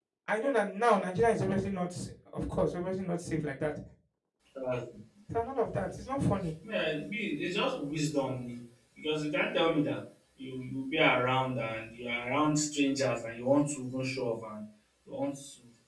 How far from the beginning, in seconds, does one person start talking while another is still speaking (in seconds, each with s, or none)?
none